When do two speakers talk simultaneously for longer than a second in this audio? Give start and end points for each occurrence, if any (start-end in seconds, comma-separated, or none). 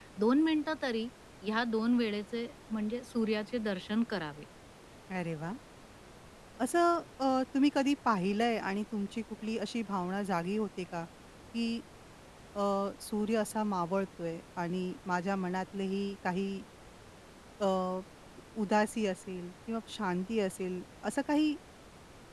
none